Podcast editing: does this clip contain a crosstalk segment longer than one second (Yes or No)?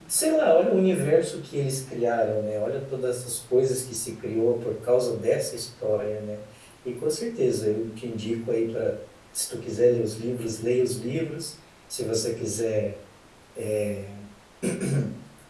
No